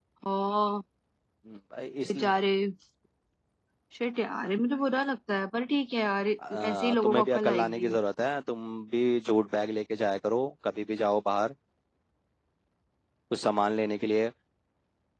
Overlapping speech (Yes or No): Yes